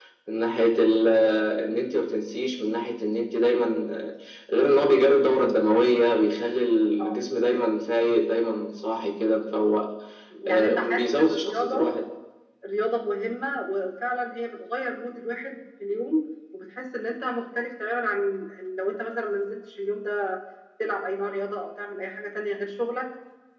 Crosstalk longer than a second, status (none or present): present